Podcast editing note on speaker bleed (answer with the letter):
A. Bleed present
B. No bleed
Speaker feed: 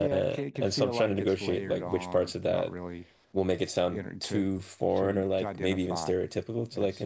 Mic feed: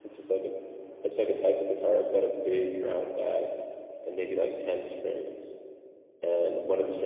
B